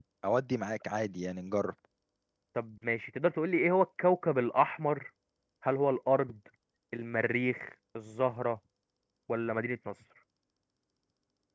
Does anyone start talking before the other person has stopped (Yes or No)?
No